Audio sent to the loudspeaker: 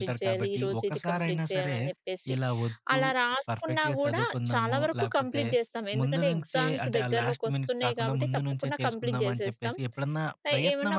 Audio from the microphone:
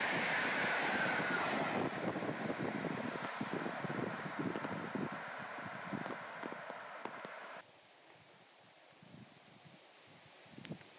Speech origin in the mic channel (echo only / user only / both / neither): neither